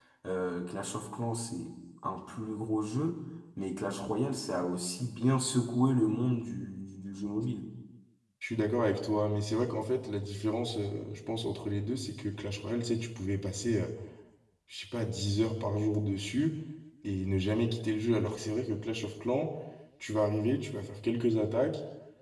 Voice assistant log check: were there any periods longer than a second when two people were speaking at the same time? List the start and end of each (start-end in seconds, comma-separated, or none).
none